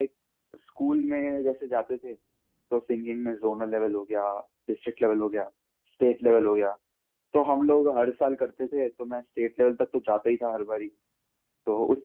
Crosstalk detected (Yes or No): No